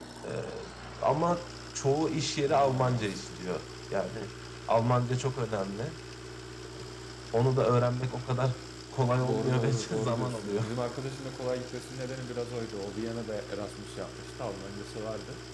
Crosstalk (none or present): present